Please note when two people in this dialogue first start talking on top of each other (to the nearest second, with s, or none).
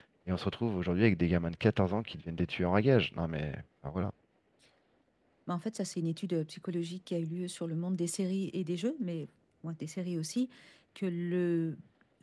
none